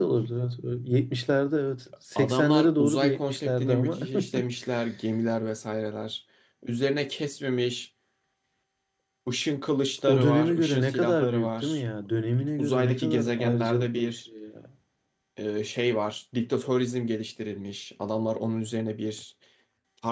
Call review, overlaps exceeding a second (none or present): present